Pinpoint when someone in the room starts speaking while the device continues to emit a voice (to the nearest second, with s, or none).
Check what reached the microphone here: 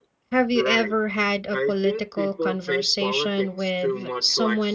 0 s